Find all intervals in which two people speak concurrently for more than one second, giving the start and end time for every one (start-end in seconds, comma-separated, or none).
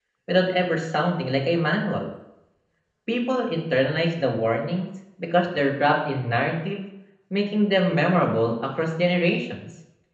none